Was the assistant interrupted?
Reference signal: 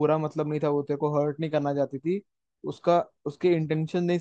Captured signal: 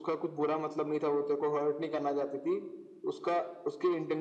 No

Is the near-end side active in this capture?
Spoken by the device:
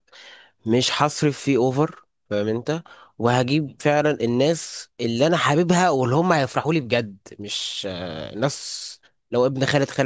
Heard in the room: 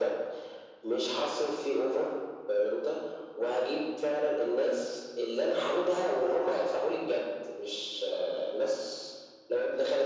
No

